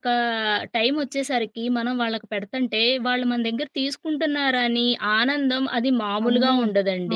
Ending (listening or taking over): taking over